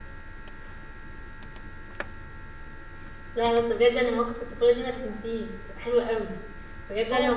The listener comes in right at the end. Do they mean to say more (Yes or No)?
No